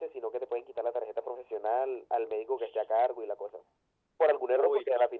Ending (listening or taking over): listening